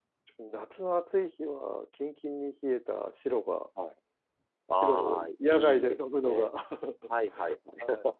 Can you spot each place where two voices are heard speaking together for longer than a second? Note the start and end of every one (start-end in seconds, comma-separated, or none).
4.8-6.5